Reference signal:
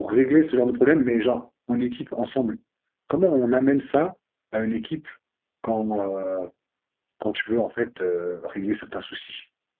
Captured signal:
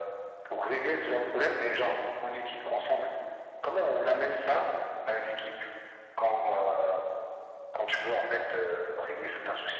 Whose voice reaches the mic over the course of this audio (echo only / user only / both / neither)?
echo only